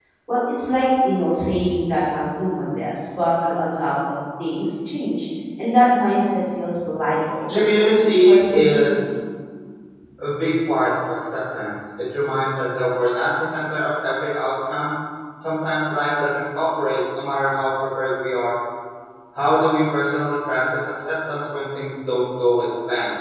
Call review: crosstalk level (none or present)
present